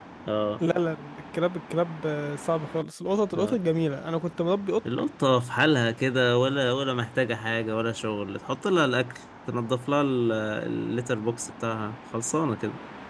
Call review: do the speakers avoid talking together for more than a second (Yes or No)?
Yes